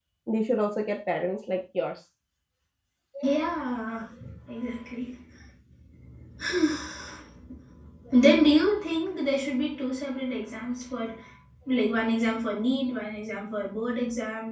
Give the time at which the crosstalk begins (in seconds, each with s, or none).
none